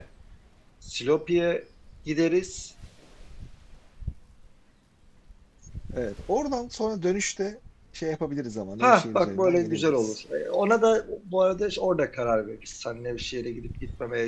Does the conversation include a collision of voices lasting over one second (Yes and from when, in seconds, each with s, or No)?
Yes, from 8.8 s